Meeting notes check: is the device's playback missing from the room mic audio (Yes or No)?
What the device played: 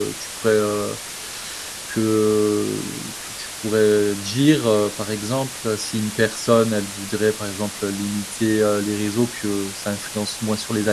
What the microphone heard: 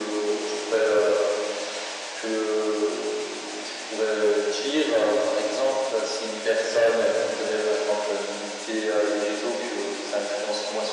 No